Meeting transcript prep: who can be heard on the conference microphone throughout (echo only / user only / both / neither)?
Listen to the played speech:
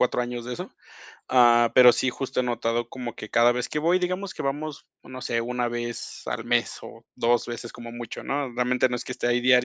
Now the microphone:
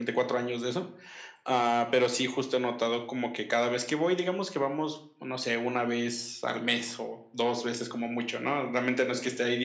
echo only